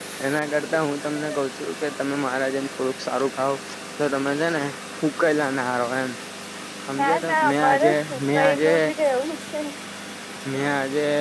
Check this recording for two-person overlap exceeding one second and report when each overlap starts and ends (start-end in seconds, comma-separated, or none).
7.0-8.7